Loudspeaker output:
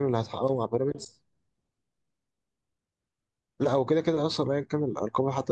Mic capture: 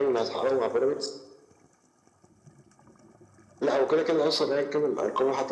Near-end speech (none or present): none